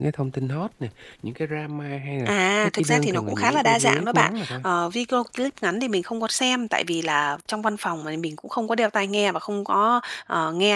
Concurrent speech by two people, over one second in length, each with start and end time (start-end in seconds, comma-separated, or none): 2.3-4.6